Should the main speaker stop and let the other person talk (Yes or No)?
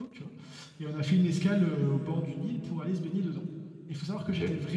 No